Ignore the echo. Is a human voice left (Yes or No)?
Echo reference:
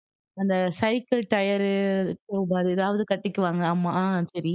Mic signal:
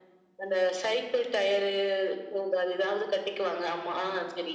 No